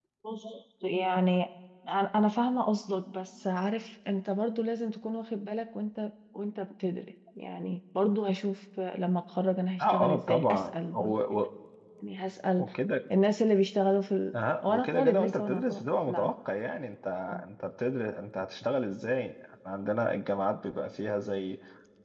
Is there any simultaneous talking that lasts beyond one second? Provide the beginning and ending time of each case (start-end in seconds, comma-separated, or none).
9.8-11.2, 14.6-16.3